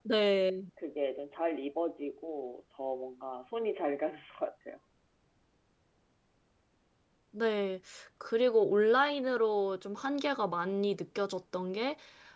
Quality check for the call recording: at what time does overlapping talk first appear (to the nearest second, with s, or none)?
none